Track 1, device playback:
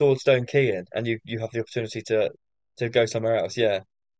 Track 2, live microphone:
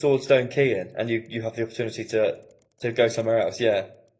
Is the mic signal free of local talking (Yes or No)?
Yes